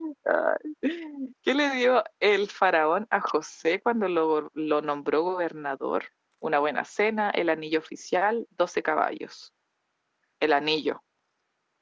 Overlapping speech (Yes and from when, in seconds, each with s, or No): No